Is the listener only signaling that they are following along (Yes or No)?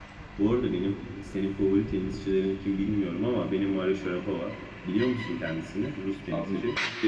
No